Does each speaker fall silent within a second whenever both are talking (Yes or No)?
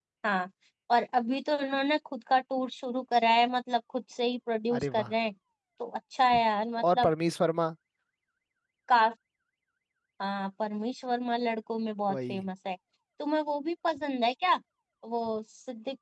Yes